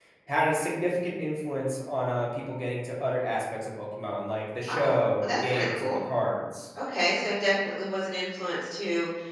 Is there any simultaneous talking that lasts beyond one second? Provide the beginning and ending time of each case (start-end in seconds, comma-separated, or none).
4.6-6.0